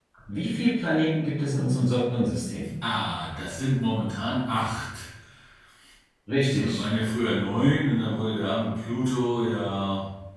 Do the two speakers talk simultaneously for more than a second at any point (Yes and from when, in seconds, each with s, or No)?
No